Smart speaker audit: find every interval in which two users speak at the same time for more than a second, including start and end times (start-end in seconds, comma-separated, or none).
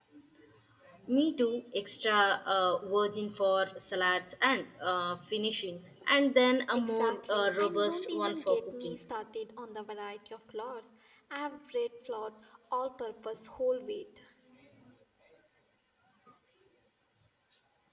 6.7-9.0